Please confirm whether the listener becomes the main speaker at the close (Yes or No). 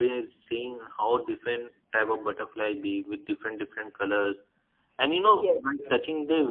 No